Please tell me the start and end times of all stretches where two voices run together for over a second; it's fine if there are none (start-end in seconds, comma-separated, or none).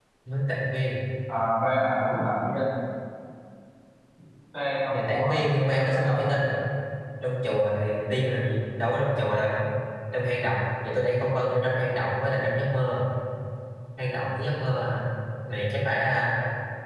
4.9-6.2